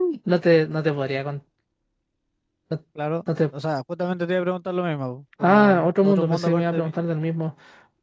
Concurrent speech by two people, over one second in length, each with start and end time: 5.4-6.9

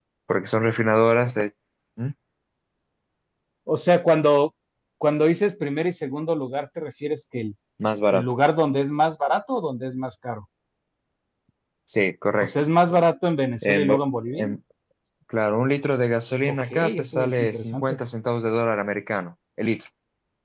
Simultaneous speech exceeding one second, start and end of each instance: 16.5-17.9

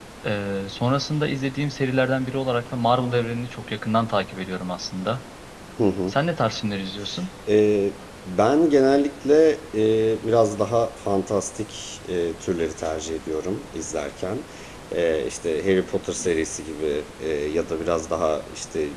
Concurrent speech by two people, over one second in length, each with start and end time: none

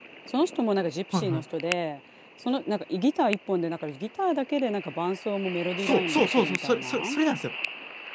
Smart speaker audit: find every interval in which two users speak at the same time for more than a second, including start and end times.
5.8-7.1

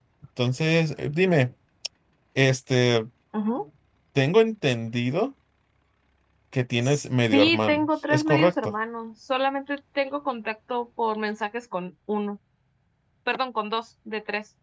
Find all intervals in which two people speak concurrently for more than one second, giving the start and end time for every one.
7.3-8.7

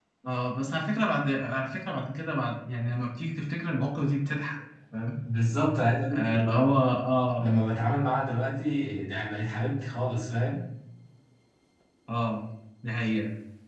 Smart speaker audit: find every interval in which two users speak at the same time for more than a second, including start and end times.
none

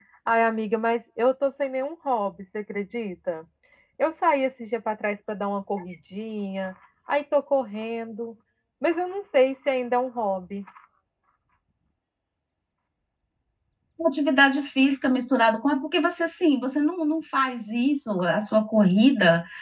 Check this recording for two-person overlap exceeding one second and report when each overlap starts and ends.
none

